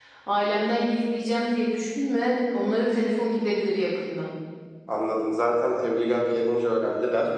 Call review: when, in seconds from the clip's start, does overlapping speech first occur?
none

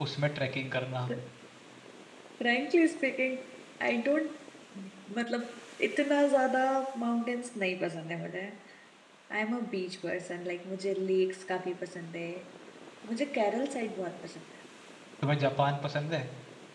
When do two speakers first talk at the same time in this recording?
none

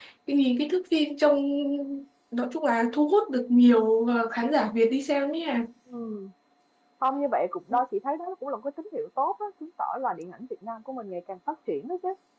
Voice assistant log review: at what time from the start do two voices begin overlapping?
none

